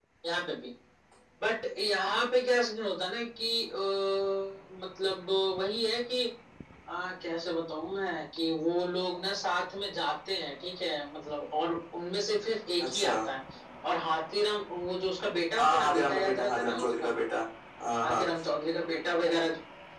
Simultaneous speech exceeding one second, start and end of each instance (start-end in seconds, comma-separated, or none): 15.6-17.1